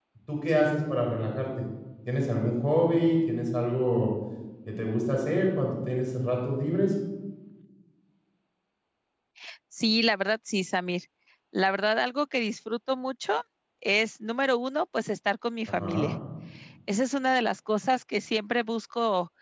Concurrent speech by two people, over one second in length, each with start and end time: none

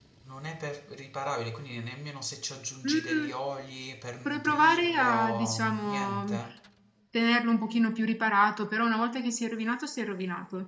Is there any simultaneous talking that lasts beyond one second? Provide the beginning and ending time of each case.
4.2-6.3

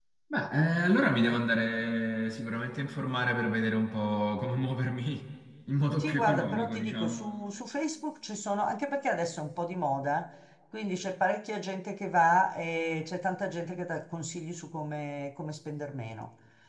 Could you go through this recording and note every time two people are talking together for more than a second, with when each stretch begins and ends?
6.0-7.2

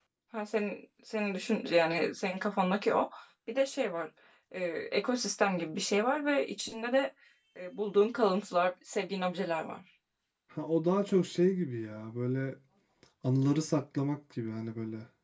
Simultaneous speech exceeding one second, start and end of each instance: none

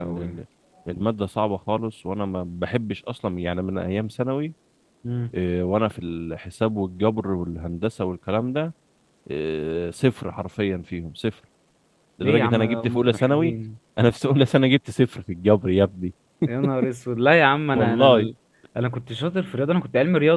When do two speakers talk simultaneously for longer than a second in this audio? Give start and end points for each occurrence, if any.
12.2-13.5

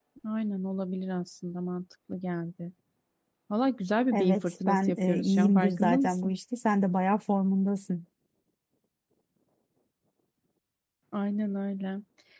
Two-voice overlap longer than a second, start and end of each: 4.1-6.3

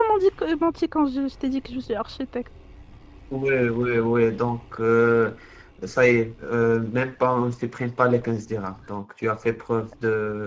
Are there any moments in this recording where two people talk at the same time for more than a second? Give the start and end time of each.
none

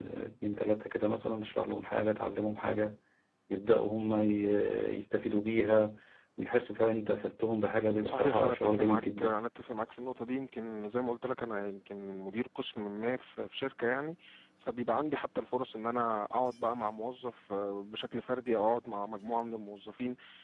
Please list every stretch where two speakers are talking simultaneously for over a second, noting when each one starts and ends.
8.0-9.4

